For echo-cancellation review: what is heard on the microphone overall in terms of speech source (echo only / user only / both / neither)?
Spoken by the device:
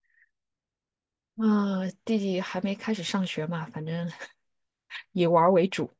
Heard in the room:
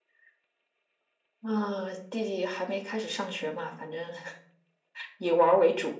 echo only